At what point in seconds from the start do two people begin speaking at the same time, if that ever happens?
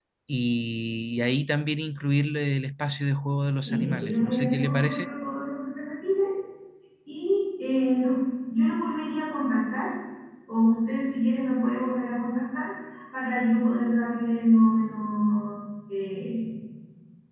3.6 s

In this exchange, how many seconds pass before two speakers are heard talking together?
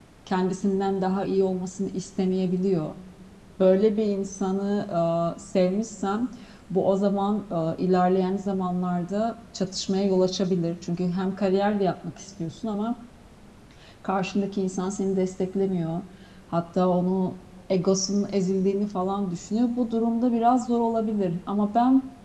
none

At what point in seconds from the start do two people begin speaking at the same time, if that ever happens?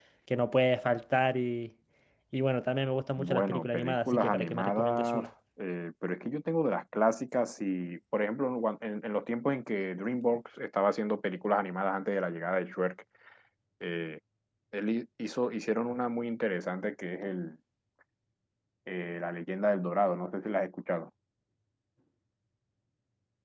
3.2 s

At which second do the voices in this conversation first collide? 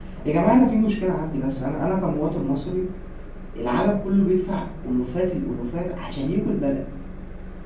none

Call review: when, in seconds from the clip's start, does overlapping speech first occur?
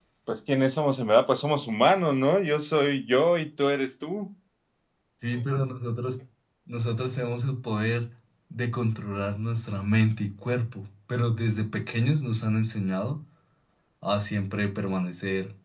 none

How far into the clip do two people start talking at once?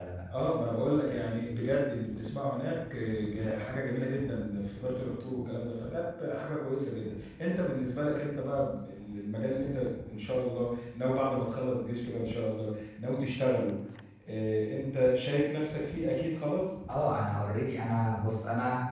none

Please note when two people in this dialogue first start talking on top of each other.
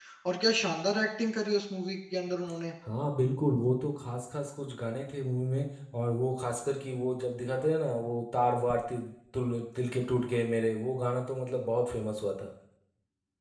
none

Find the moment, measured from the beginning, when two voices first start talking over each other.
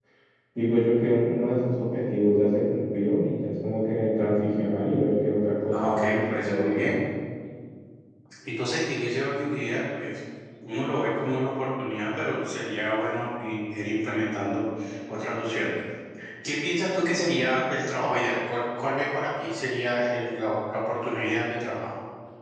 5.7 s

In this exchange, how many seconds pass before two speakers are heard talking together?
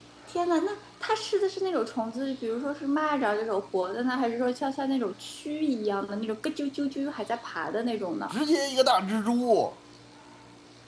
none

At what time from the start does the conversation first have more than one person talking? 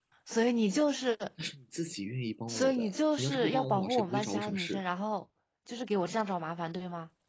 2.5 s

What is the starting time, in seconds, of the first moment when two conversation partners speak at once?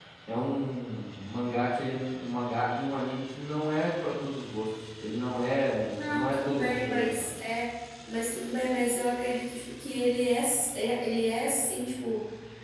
6.0 s

